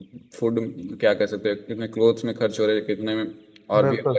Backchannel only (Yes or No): Yes